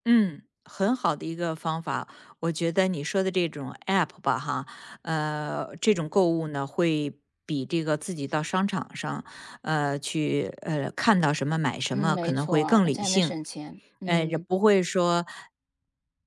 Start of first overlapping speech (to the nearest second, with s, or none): 12 s